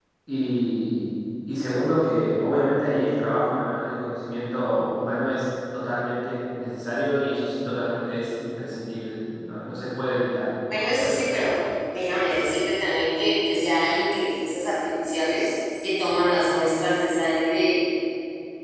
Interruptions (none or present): none